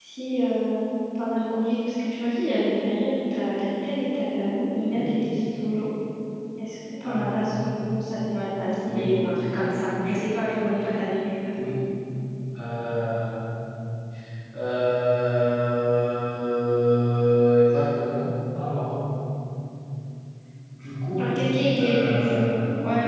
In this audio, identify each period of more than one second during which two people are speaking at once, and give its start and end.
none

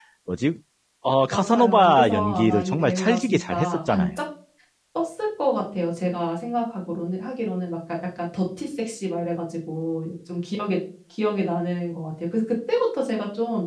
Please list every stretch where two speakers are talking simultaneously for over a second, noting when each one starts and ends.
1.3-4.1

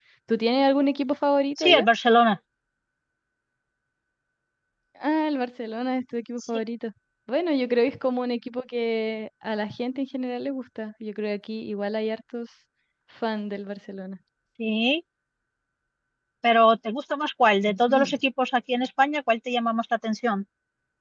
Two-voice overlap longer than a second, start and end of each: none

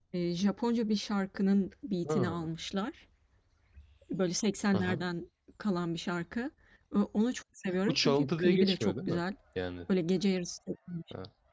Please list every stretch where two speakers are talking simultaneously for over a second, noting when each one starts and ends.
7.9-9.2

